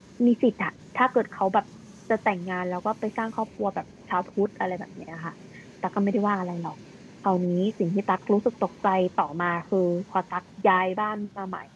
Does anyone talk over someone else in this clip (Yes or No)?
No